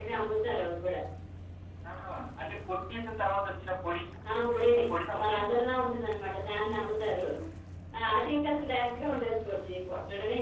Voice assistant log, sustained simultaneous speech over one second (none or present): none